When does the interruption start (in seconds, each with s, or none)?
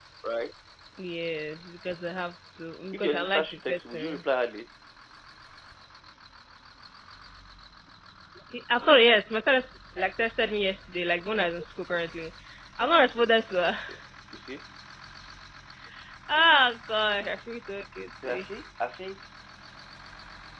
2.9 s